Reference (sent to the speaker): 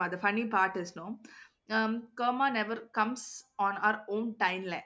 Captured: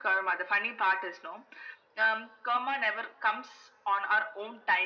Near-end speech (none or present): none